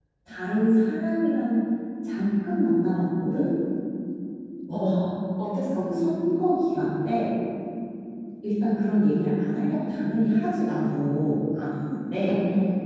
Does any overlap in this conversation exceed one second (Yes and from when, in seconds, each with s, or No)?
No